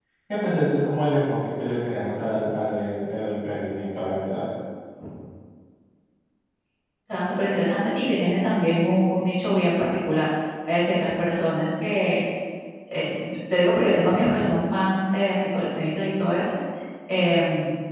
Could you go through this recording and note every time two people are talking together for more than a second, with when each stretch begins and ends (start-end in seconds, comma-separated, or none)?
none